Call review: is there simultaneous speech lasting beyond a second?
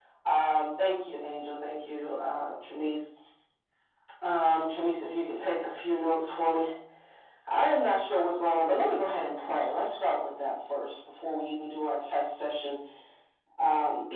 No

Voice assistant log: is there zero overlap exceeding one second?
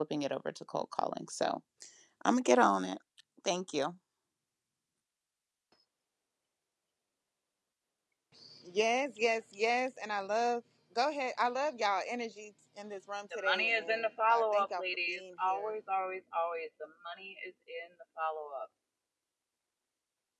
No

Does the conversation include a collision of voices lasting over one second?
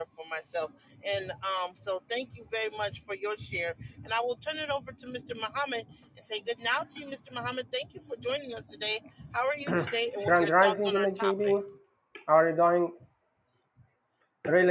Yes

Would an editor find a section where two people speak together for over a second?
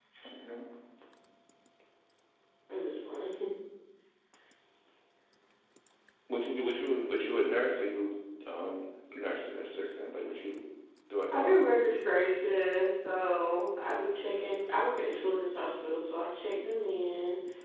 No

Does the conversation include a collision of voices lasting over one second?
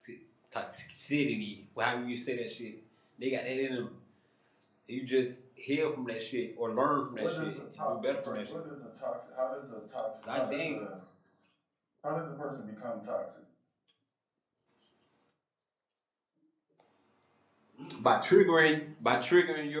Yes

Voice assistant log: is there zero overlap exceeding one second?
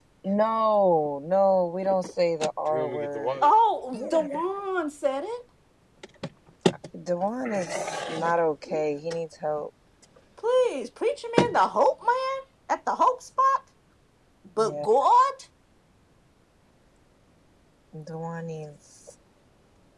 Yes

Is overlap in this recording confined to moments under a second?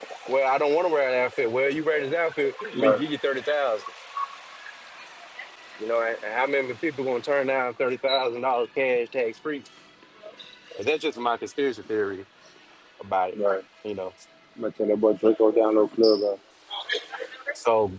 Yes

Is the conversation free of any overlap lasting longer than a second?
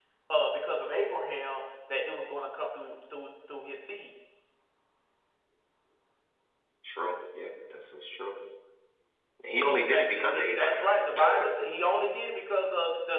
No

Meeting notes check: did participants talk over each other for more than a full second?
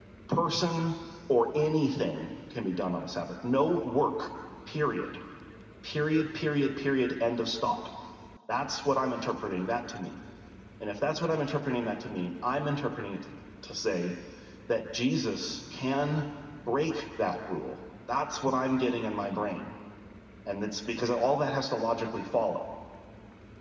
No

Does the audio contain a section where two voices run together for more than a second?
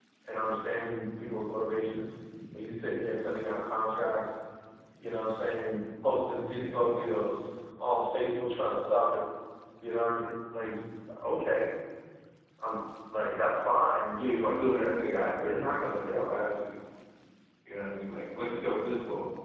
Yes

